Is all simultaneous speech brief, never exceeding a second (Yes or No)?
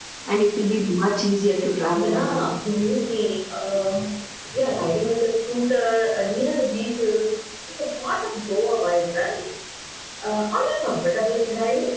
Yes